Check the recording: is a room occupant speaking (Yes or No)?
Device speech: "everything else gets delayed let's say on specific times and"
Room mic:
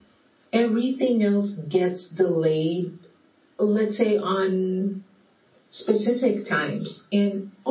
No